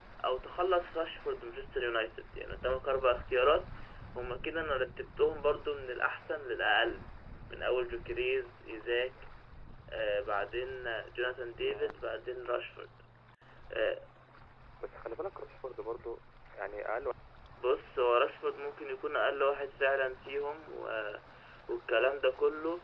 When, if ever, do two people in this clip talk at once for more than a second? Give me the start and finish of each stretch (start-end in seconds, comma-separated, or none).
none